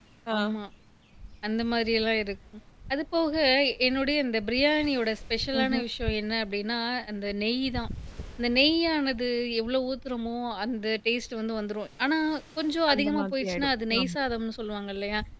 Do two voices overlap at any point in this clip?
Yes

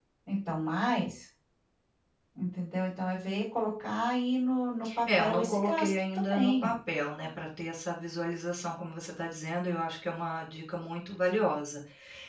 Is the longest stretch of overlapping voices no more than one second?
No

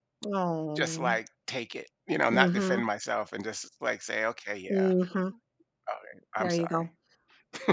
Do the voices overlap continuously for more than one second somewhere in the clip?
No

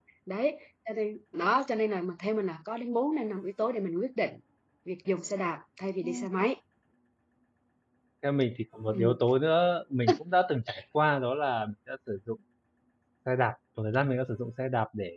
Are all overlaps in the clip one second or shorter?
Yes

